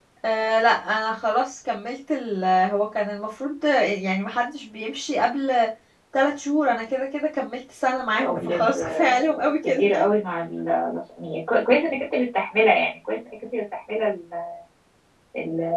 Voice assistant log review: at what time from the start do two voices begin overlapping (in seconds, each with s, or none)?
8.1 s